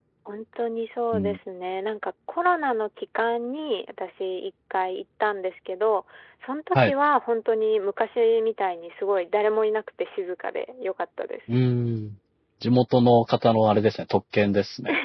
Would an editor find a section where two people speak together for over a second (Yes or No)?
No